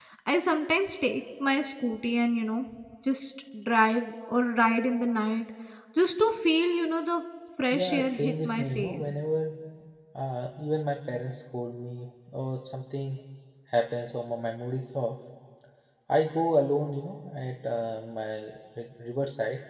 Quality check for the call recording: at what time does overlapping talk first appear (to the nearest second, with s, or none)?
8 s